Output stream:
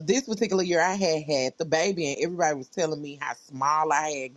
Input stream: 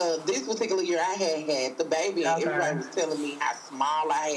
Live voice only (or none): okay.